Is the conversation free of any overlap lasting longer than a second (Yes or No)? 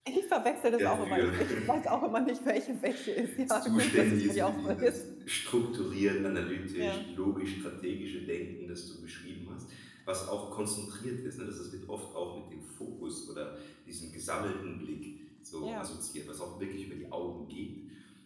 No